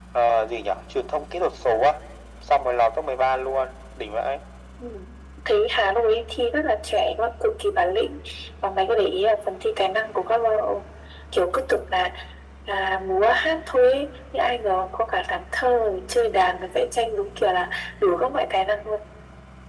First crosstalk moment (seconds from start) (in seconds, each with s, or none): none